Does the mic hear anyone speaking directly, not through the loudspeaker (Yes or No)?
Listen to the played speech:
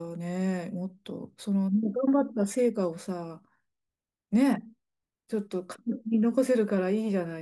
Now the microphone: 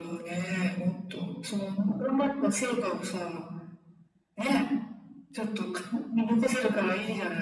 No